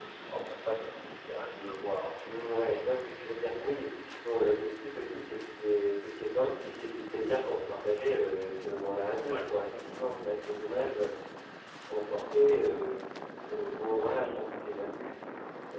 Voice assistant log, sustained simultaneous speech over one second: none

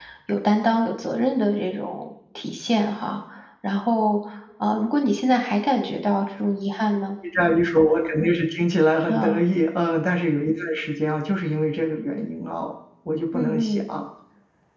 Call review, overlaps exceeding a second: none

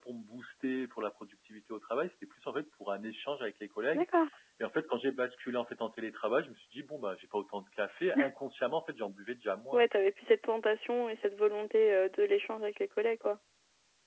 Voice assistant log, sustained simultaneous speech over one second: none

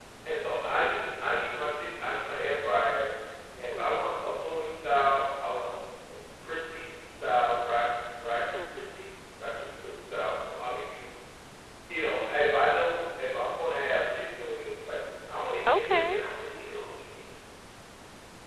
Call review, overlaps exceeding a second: none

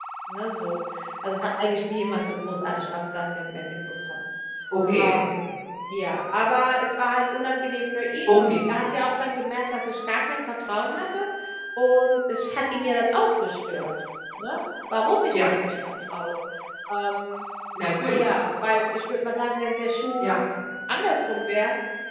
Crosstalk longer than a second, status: none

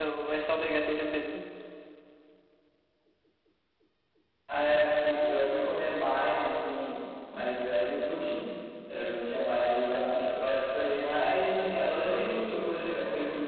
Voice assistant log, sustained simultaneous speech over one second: none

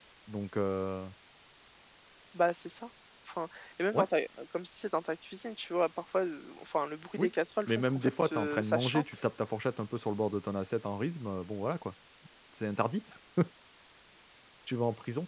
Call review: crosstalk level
present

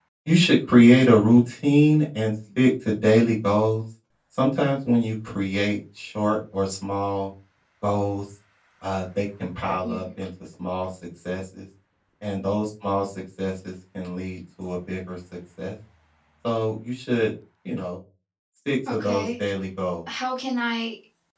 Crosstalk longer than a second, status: none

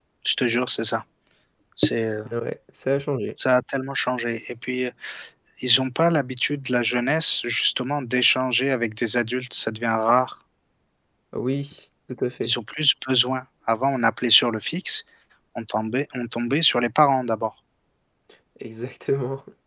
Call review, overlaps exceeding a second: none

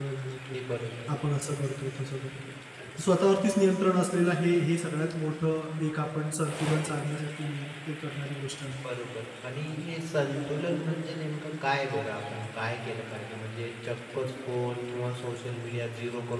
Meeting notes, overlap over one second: none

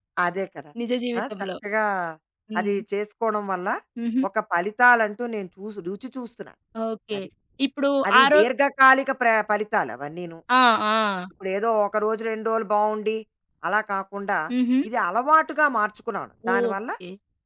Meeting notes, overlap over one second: none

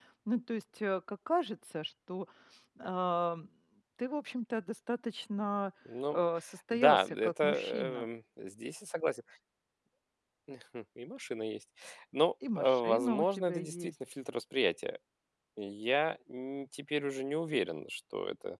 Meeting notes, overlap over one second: present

